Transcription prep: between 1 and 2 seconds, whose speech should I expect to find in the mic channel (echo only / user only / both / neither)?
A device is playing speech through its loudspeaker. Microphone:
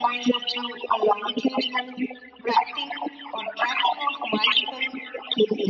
echo only